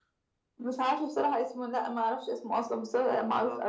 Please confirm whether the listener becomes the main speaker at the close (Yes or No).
Yes